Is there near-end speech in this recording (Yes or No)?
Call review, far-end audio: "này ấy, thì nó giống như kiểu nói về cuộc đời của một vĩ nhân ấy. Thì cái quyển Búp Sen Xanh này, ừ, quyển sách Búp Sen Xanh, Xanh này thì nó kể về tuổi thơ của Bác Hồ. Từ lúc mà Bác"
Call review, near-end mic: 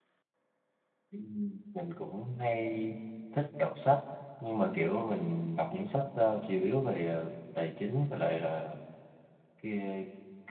Yes